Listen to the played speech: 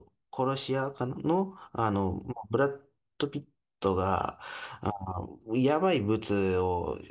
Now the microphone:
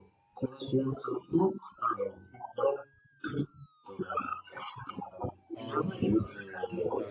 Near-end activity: present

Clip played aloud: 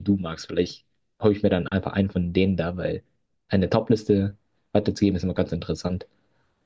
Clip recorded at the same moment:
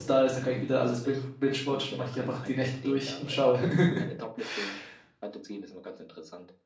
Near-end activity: present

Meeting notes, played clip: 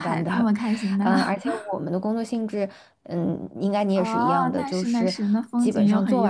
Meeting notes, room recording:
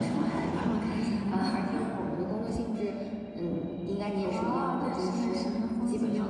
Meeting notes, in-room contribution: none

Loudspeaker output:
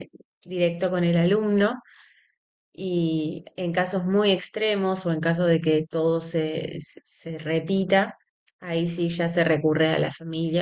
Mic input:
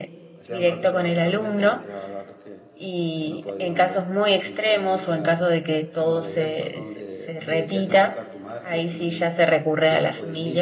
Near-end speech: present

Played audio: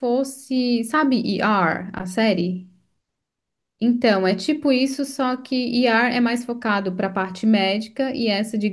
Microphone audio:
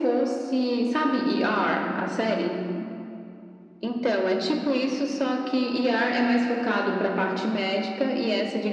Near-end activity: none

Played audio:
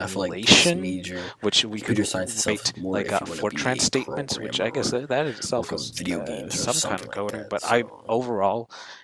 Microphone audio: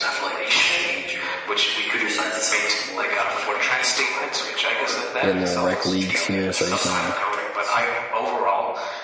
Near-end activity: present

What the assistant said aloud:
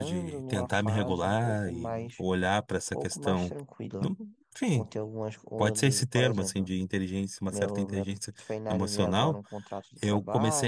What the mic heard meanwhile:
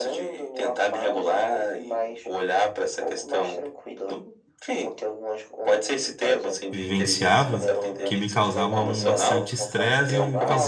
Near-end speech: present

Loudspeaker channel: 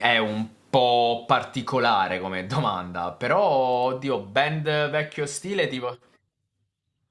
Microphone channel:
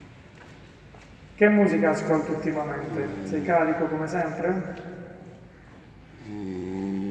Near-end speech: present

